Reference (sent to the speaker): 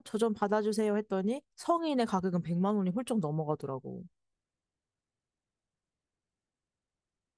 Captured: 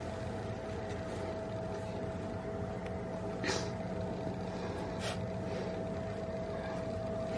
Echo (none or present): none